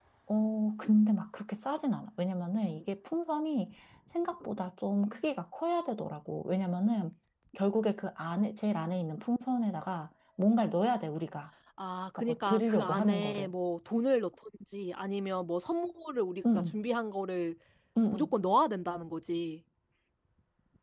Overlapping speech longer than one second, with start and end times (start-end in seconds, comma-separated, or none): 12.2-13.5